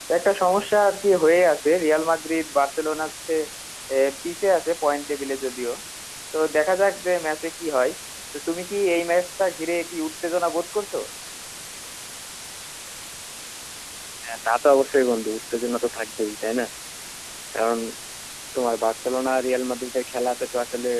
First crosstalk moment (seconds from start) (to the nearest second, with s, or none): none